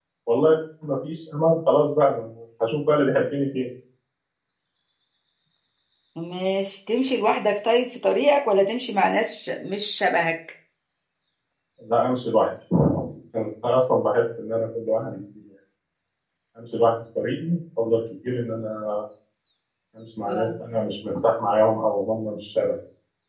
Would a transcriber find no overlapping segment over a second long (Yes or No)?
Yes